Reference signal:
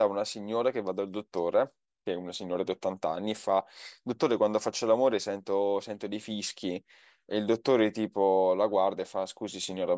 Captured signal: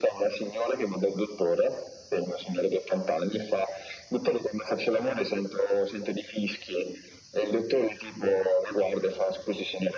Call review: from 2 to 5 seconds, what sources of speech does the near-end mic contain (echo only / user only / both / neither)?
echo only